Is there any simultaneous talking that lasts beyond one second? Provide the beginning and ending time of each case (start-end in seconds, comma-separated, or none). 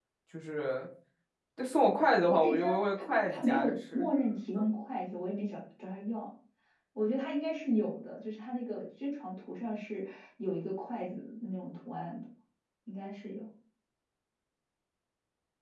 2.3-4.1